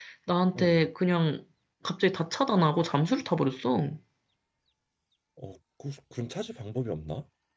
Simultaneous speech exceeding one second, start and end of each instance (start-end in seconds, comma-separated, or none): none